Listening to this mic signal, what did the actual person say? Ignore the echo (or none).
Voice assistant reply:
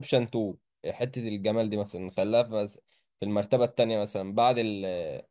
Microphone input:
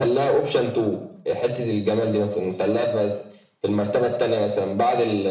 none